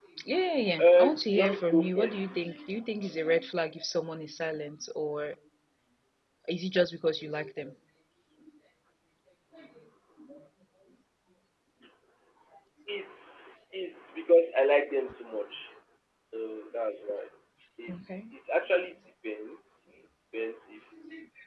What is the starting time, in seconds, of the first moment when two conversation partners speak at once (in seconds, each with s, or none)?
0.8 s